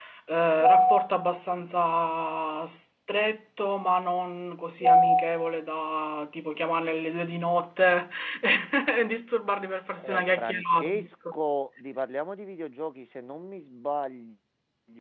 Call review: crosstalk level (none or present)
present